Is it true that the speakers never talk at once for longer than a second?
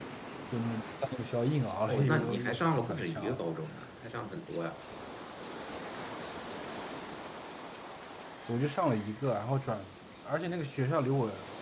No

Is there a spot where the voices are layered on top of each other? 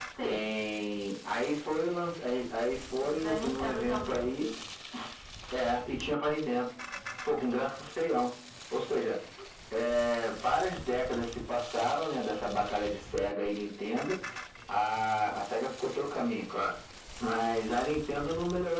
Yes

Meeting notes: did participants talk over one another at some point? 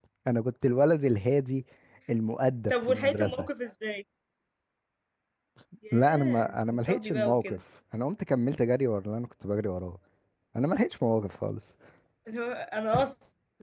Yes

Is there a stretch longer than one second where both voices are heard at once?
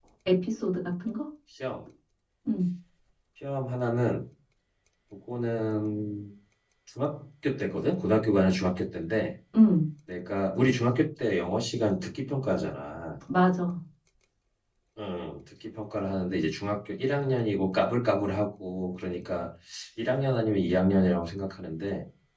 No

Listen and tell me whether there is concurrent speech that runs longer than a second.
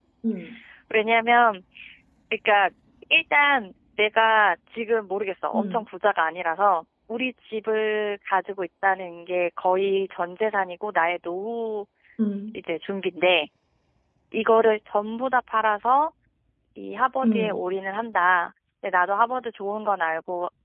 No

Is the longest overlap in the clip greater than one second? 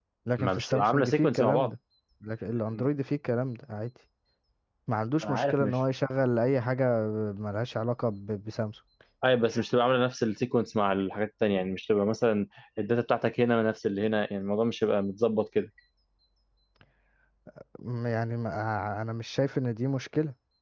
Yes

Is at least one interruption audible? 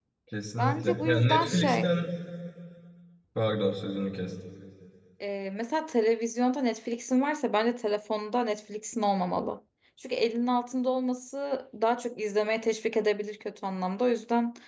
Yes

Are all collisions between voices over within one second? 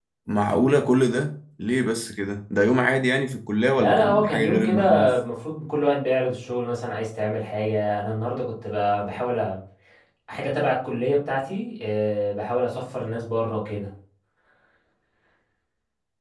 No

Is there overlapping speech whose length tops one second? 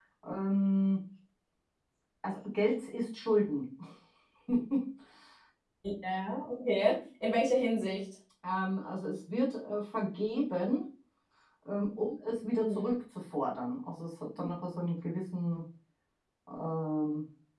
No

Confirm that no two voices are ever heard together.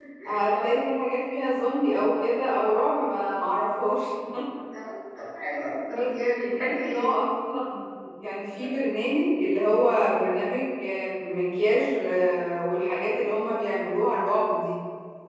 No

